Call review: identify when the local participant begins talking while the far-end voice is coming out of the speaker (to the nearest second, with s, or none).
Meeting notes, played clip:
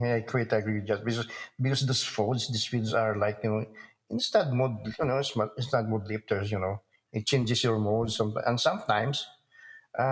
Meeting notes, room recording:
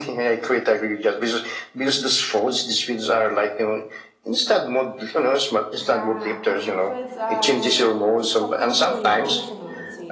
6 s